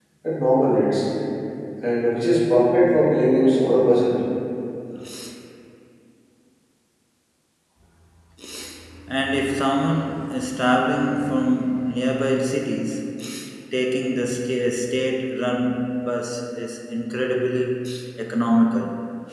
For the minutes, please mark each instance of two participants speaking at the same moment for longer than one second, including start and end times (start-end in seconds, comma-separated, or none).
none